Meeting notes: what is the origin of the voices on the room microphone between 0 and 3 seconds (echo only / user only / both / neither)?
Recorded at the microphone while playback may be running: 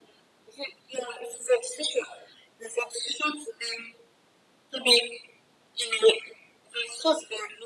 echo only